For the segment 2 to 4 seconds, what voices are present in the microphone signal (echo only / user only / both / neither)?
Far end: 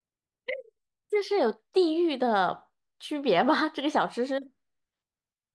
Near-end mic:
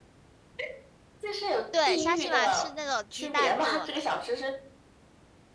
both